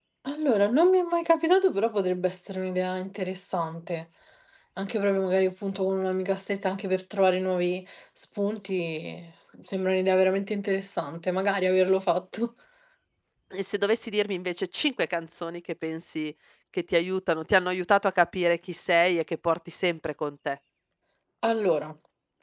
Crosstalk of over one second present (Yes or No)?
No